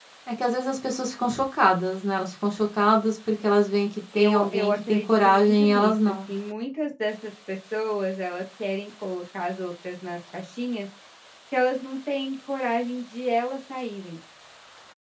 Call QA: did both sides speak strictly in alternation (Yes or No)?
No